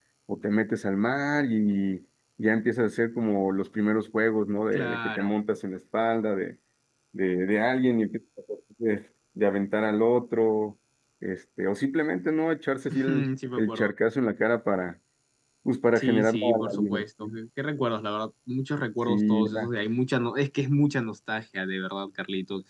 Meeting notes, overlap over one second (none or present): present